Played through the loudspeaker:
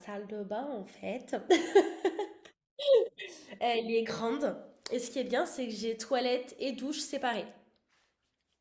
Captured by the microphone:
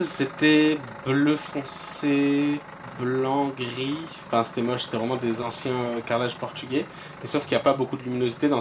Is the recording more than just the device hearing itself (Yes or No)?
Yes